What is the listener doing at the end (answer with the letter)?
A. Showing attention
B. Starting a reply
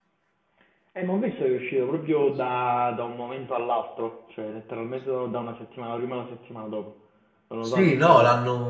B